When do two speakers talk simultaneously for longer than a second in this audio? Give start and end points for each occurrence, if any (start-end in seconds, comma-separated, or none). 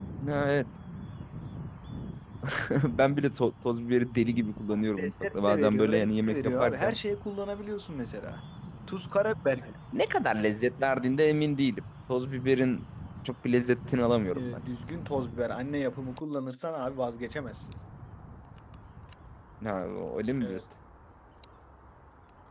4.7-6.9